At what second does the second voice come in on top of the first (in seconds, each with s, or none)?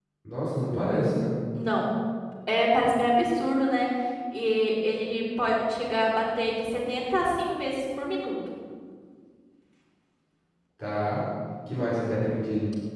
none